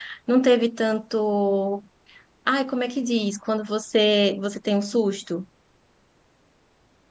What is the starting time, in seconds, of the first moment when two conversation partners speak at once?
none

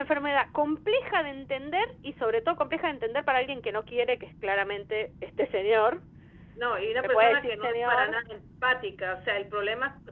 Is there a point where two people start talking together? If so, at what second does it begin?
7 s

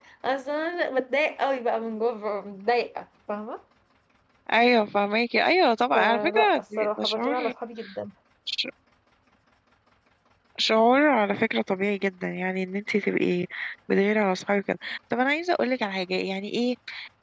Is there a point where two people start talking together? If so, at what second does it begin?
6 s

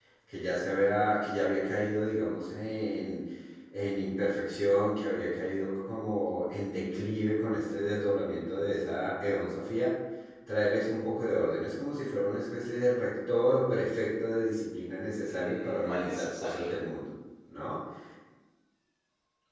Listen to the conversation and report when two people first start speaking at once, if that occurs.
15 s

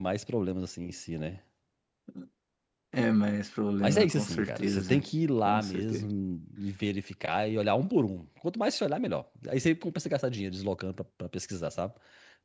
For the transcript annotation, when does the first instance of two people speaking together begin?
4 s

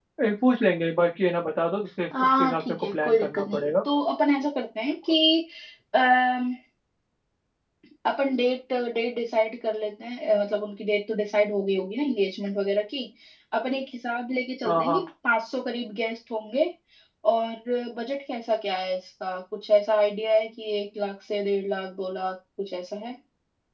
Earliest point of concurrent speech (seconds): 2 s

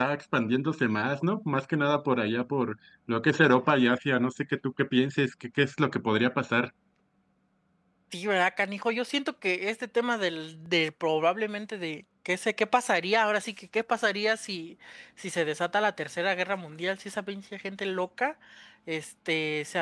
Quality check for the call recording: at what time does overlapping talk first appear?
none

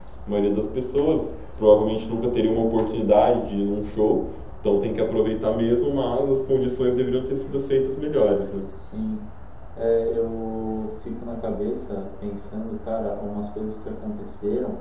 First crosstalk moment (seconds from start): none

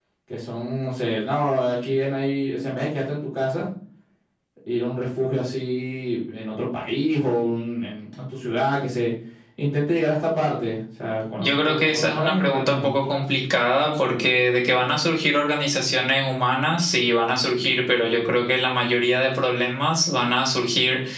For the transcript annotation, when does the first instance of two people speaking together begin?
11 s

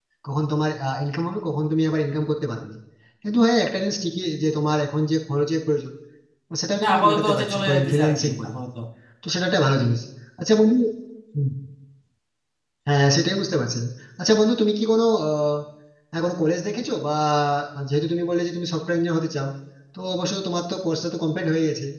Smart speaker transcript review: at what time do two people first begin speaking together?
7 s

